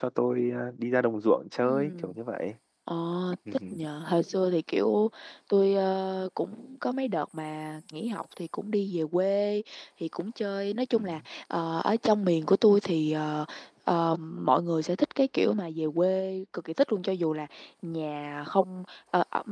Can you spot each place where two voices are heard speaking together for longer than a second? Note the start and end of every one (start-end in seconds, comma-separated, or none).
none